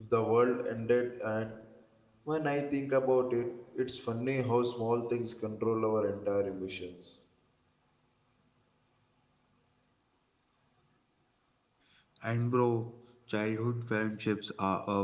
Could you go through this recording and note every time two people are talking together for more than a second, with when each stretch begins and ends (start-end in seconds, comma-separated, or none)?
none